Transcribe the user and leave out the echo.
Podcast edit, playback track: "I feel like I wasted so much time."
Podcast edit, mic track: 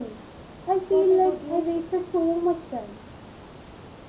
What about you?

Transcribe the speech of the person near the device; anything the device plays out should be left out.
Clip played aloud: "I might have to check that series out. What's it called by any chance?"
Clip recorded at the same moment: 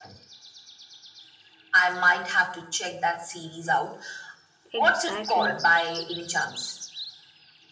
Exactly.

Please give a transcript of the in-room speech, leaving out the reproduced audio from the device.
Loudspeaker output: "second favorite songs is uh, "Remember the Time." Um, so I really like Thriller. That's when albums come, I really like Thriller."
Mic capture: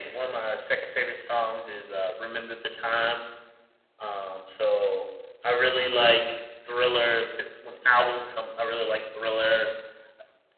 none

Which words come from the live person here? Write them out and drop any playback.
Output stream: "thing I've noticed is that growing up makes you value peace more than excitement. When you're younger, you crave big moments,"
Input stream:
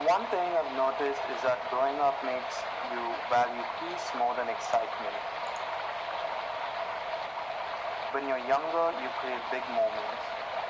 none

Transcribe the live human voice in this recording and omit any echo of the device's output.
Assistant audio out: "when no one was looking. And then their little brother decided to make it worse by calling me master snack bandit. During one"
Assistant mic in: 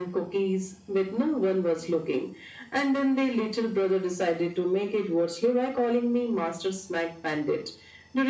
none

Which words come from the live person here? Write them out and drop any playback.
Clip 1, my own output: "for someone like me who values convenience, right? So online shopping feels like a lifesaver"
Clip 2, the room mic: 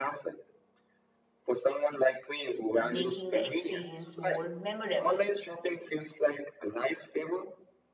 making the experience more memorable.

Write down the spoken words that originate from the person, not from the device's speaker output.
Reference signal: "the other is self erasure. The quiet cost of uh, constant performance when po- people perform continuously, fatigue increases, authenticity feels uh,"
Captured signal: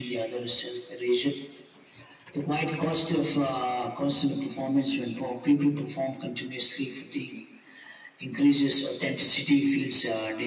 none

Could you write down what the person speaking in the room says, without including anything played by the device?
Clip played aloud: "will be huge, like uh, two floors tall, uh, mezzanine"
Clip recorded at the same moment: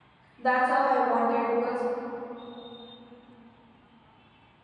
that's how i wanted because

